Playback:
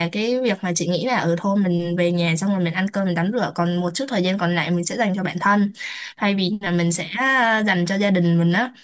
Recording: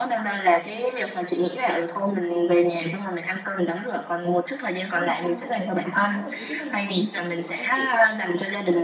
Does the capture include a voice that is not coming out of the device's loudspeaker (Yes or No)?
Yes